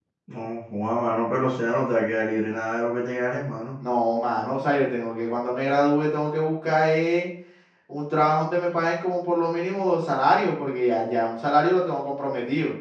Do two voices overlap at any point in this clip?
No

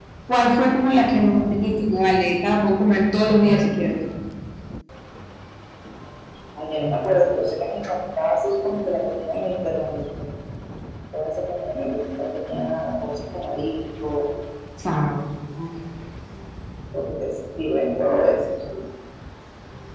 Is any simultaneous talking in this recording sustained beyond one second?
No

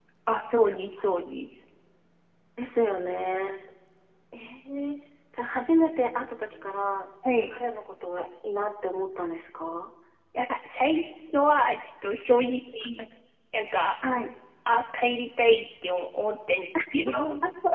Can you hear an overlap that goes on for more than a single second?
No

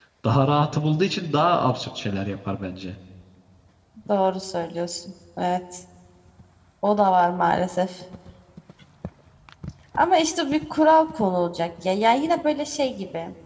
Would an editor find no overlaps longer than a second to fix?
Yes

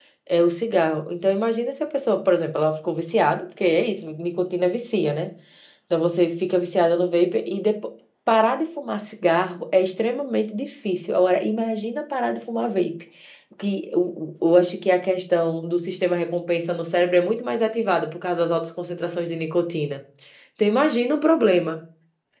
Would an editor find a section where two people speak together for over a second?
No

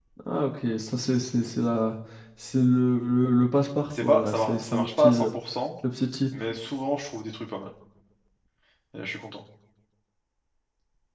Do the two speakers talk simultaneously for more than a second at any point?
Yes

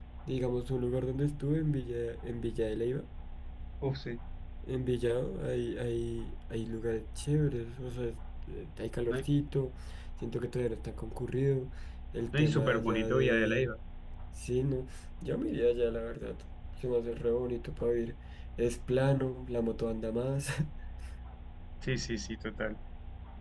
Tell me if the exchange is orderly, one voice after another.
No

